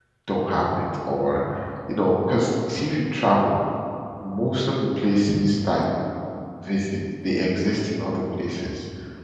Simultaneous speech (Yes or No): No